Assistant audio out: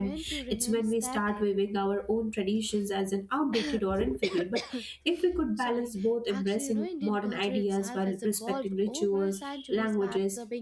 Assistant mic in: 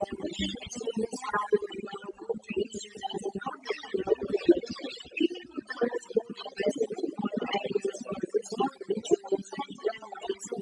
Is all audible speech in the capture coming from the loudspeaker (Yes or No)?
Yes